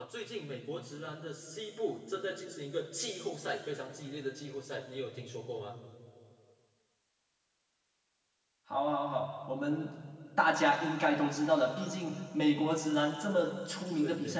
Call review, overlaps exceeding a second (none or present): none